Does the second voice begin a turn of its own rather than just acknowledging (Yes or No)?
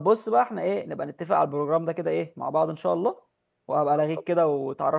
No